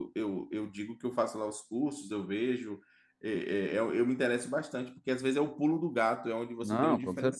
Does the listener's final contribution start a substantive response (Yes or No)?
Yes